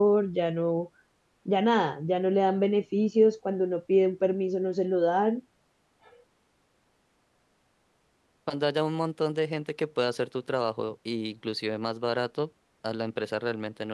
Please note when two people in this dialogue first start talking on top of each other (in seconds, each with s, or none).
none